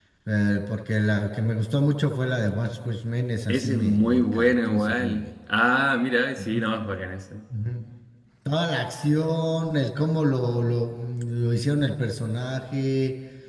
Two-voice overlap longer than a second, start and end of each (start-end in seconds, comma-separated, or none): 3.5-5.3